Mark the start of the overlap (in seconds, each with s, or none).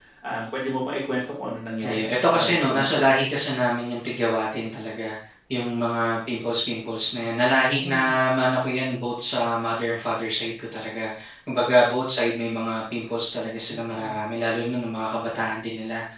1.8 s